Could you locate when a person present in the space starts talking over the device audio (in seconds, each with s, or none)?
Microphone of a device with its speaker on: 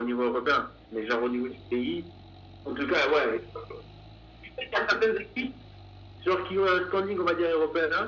none